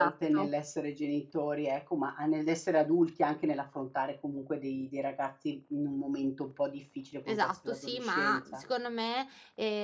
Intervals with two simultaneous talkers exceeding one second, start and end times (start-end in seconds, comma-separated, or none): 7.3-8.6